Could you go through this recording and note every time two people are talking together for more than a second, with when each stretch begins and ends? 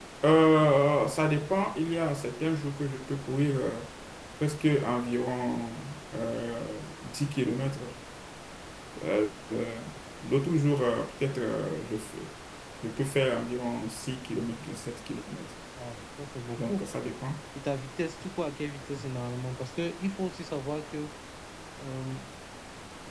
none

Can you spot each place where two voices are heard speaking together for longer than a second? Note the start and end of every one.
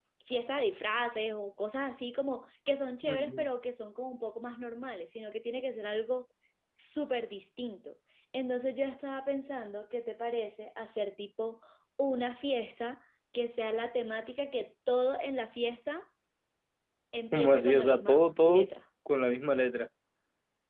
17.3-18.7

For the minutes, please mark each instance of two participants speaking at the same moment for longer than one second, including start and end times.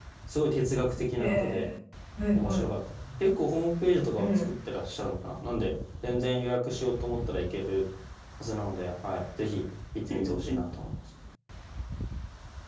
none

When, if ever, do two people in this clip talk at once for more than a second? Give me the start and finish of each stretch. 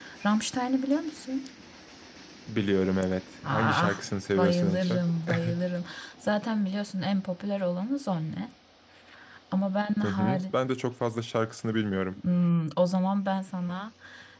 3.5-5.0

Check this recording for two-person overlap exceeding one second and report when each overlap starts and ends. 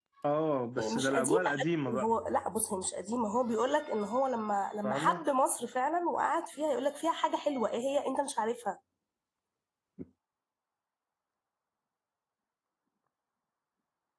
0.8-2.1

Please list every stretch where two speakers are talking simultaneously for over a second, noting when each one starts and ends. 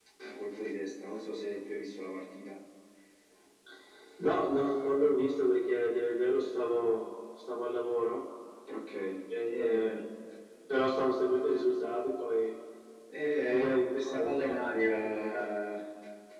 13.4-15.5

